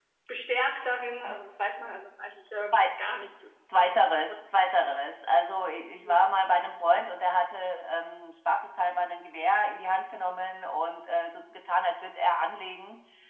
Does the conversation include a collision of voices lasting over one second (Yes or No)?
No